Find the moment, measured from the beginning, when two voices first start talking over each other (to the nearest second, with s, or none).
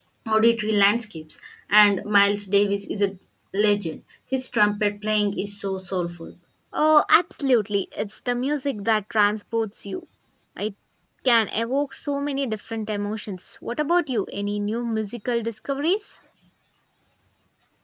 none